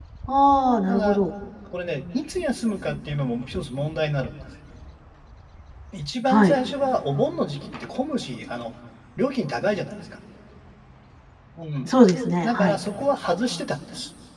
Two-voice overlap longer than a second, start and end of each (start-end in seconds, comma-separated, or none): none